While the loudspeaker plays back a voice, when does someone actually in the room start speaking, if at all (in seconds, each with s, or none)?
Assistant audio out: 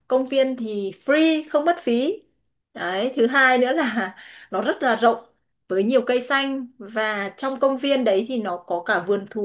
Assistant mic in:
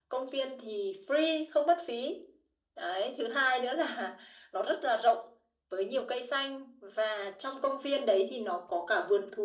none